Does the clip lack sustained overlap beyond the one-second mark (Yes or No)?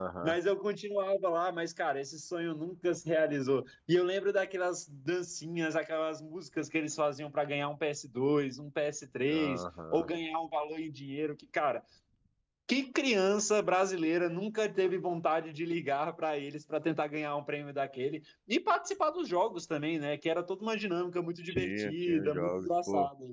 No